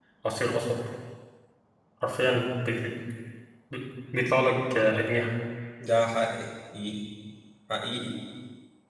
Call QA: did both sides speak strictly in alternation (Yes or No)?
Yes